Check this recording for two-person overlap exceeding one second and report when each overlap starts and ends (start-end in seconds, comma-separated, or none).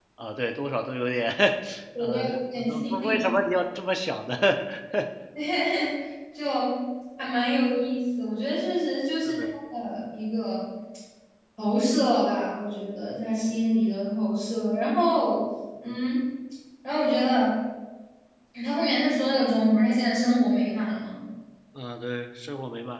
2.0-3.2